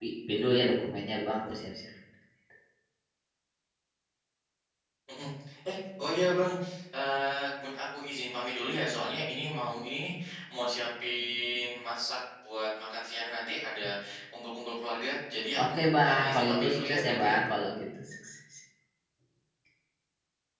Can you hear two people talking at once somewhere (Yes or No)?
Yes